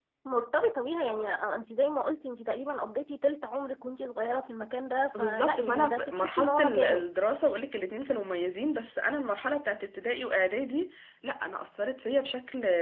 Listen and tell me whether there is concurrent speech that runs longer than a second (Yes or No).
Yes